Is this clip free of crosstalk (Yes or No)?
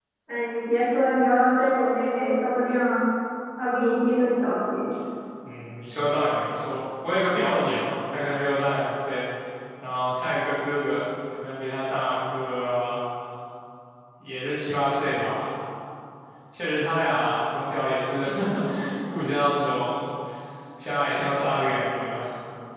Yes